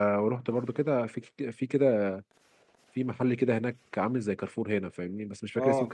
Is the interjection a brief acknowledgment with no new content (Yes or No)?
Yes